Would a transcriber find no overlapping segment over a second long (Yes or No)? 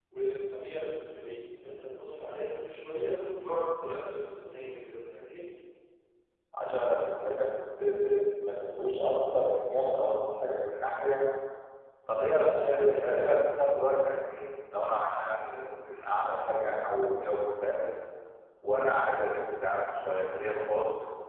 No